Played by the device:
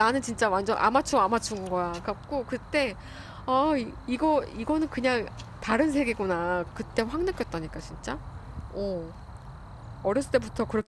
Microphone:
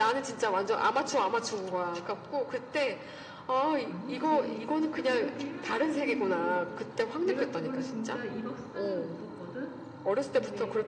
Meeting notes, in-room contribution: present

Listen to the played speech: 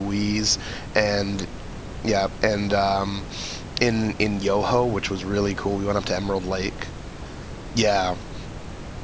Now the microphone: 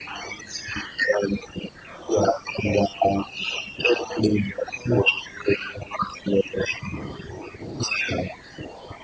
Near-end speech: none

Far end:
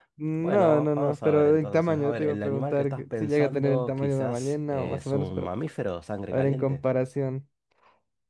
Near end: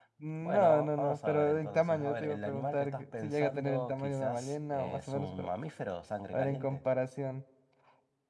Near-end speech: none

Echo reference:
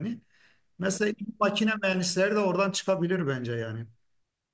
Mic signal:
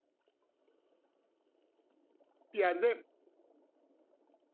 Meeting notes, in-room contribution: present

